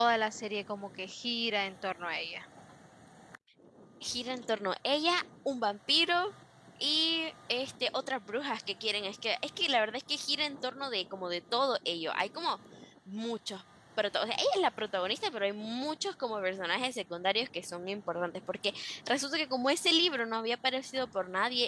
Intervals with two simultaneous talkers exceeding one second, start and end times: none

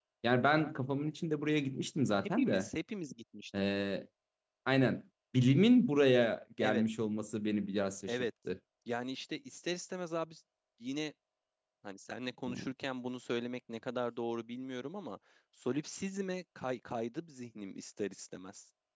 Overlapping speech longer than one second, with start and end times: none

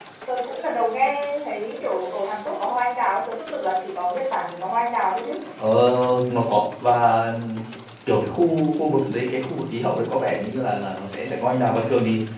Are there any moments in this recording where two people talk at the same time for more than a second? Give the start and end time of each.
none

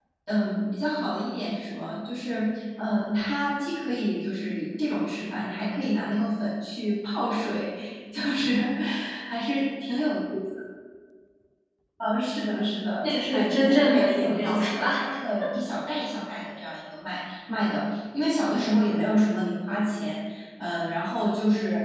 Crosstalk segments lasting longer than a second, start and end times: 13.0-14.9

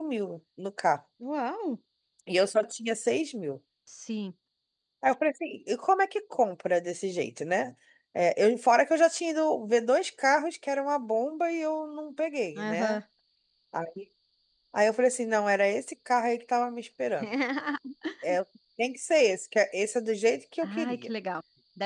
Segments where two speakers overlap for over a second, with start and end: none

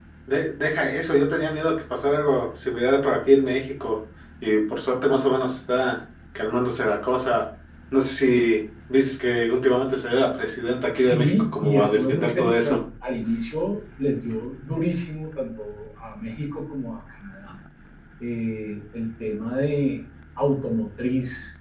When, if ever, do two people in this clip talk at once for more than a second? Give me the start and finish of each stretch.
10.9-12.8

